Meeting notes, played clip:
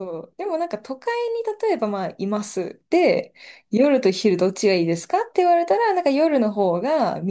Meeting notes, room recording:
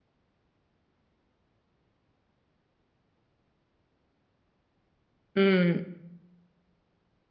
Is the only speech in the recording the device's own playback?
No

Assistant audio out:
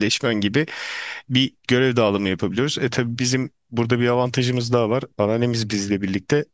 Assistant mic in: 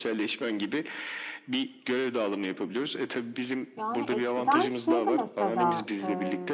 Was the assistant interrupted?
Yes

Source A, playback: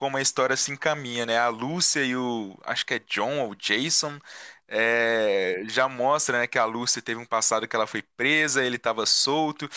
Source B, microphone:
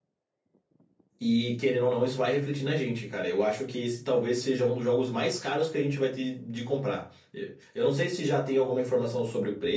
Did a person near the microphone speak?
Yes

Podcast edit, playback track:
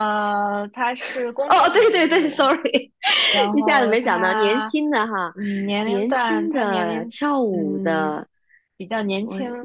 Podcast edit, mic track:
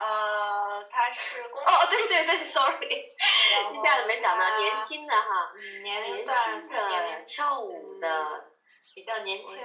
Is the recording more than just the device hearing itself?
No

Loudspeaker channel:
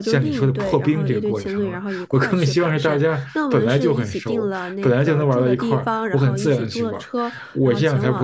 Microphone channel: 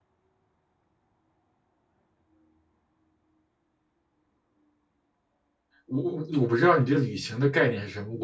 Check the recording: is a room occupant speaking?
Yes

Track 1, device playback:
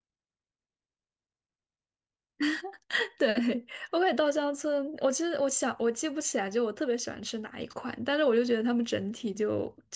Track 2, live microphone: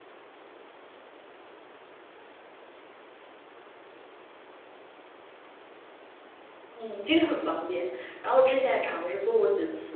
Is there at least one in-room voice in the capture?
Yes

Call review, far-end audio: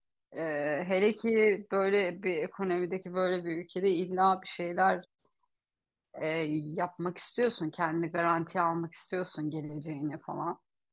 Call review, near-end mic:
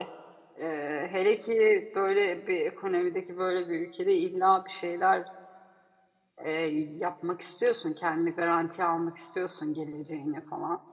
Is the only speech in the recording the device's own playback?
Yes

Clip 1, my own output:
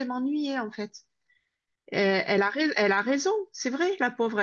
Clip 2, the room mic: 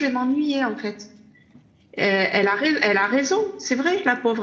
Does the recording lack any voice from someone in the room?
Yes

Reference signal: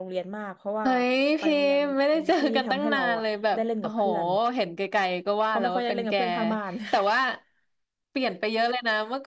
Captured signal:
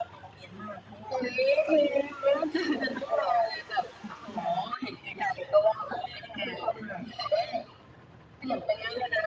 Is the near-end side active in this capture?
No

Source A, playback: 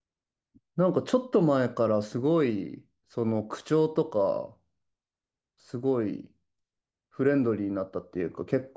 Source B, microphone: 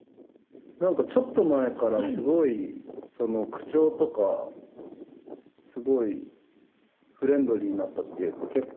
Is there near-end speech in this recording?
Yes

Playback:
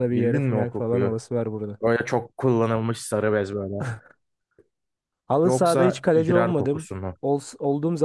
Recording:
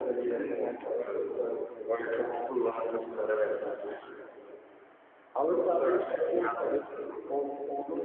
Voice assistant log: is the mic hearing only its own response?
No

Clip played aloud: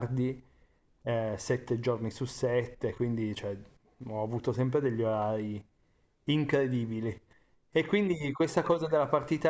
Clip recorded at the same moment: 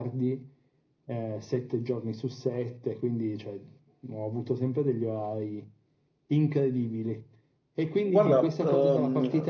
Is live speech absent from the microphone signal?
No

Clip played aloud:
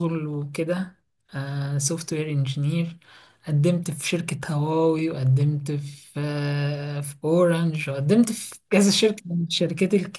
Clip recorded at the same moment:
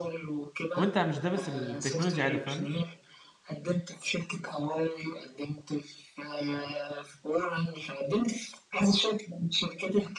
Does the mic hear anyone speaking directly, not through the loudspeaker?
Yes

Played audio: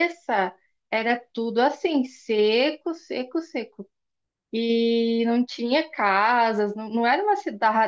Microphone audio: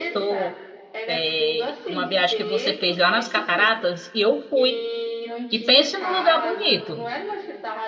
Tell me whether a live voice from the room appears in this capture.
Yes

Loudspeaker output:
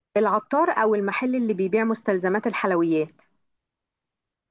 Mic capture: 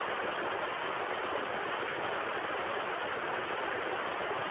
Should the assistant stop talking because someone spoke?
No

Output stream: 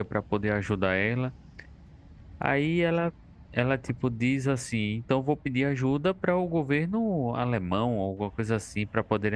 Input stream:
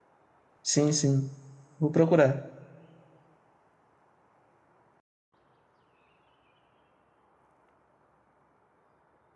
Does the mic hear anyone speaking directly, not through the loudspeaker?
Yes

